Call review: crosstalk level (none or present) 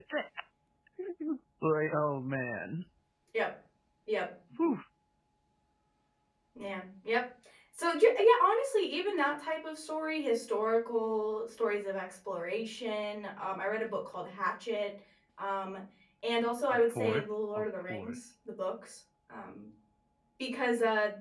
present